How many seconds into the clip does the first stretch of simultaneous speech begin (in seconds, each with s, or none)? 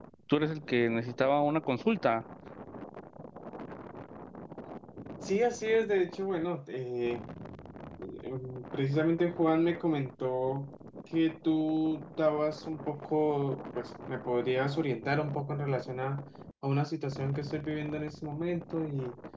none